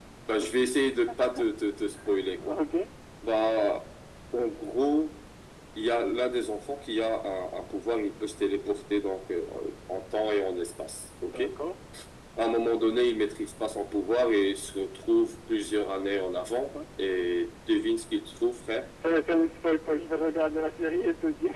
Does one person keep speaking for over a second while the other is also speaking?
No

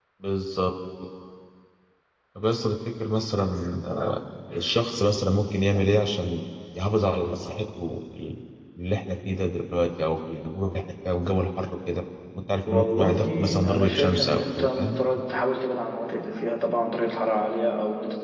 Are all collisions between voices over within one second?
No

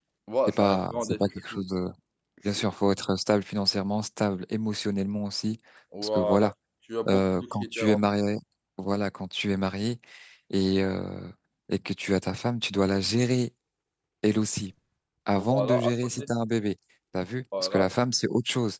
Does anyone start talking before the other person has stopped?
Yes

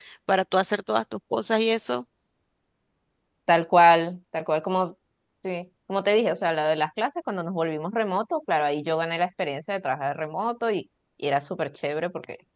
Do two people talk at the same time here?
No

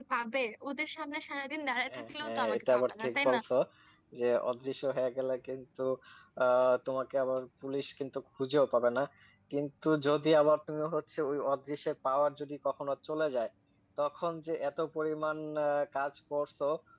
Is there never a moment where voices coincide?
No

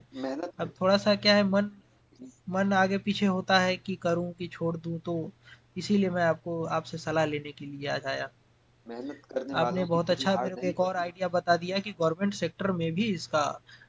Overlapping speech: Yes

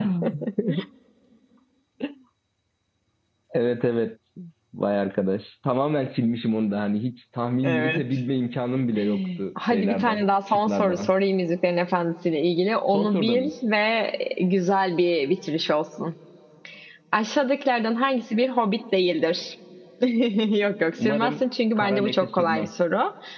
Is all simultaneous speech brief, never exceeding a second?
No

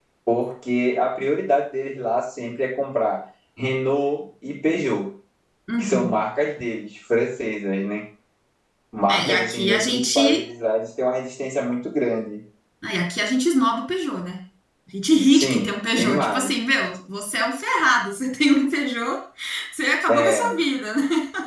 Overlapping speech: Yes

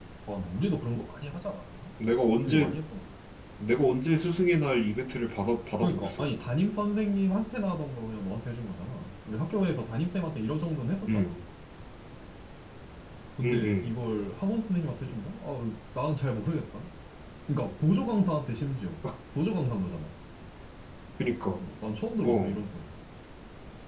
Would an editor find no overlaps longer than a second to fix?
Yes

